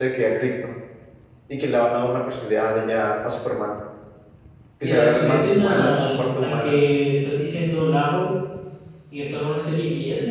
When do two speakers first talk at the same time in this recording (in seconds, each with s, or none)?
4.8 s